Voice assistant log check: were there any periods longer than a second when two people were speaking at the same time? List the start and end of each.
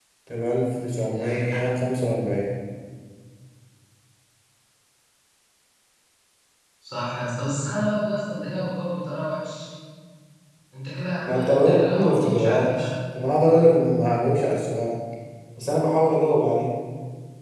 11.2-12.9

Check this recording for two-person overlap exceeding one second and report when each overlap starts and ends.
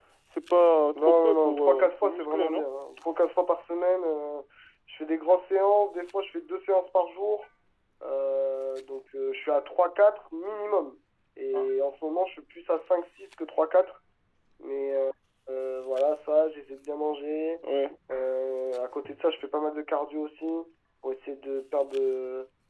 0.9-2.6

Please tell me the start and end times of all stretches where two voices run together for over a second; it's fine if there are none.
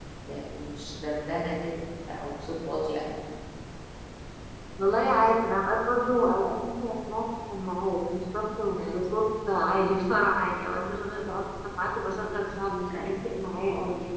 none

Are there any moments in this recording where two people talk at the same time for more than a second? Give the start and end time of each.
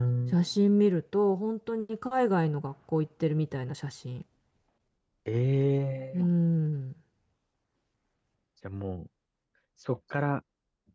none

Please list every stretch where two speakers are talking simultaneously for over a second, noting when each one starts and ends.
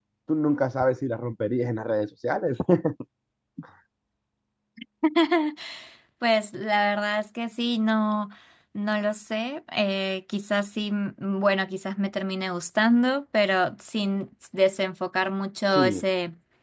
none

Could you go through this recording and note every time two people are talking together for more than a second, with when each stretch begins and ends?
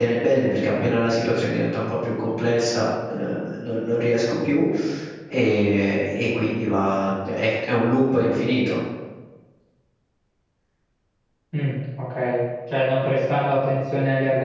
none

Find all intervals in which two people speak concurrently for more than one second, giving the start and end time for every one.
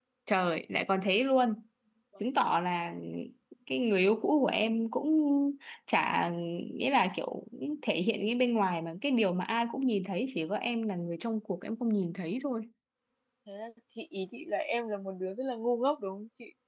none

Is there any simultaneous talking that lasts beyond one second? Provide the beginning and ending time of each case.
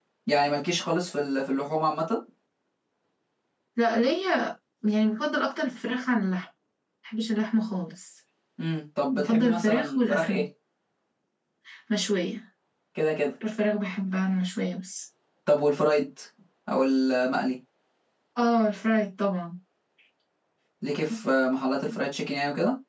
9.1-10.4

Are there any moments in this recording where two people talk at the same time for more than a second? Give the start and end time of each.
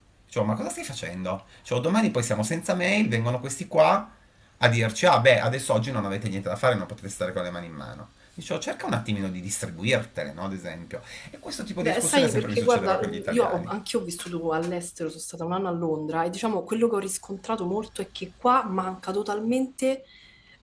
11.8-13.7

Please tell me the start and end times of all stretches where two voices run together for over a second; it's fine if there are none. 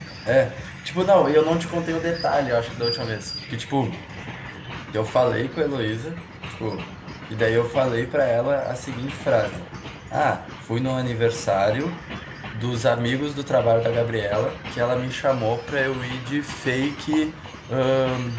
none

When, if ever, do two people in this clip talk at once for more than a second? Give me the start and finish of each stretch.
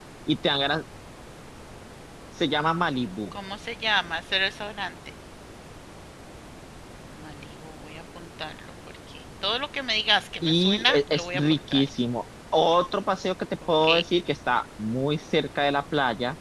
10.4-11.9

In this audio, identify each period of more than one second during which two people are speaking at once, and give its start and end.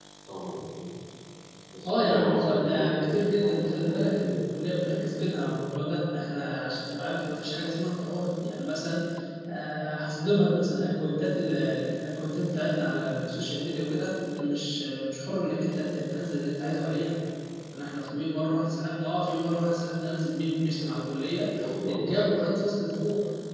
1.8-4.4

